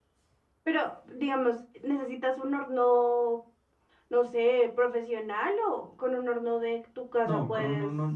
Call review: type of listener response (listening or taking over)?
taking over